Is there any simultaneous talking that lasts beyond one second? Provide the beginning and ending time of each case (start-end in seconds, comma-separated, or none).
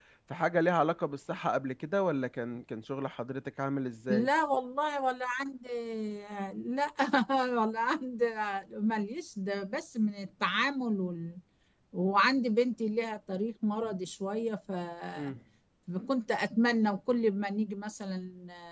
none